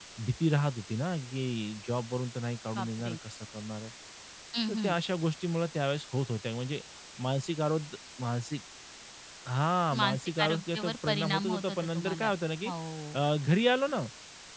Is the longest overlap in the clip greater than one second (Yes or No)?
Yes